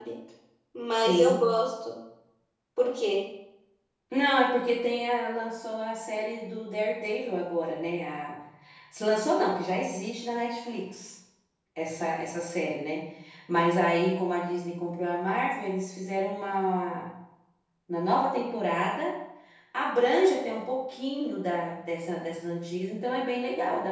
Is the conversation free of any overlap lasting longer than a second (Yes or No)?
Yes